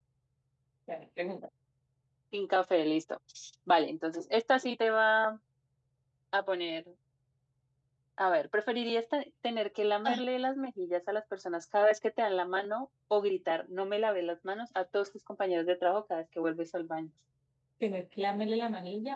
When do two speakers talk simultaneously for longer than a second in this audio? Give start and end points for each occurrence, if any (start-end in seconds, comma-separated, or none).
none